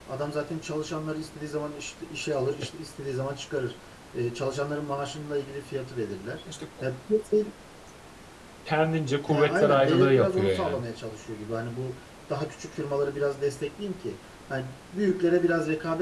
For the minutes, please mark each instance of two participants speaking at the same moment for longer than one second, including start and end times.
9.3-10.8

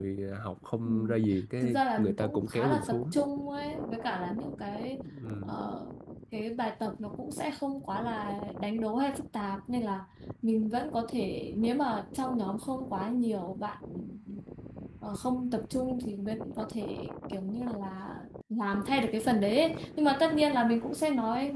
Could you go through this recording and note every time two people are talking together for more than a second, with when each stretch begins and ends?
1.6-3.0

